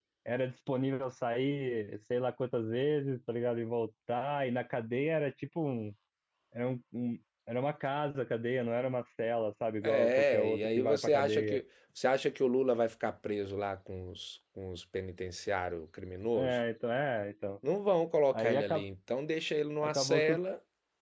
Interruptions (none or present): present